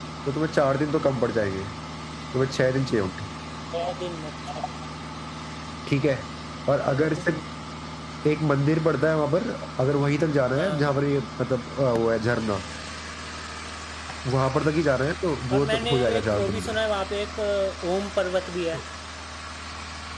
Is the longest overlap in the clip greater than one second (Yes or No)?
Yes